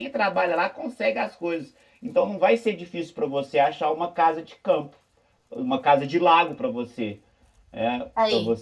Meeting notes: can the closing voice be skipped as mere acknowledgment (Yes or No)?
Yes